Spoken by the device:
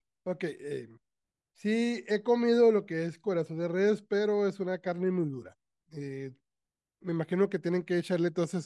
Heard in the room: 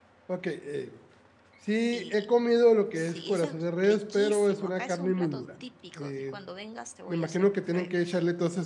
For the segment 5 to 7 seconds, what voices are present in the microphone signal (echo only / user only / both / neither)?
both